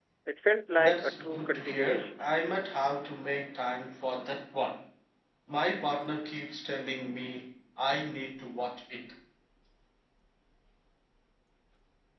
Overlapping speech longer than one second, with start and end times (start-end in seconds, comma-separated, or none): 0.8-2.1